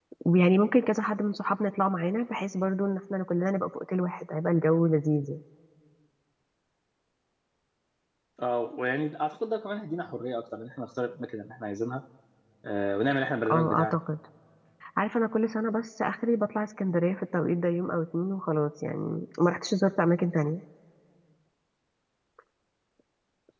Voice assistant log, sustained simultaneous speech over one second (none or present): none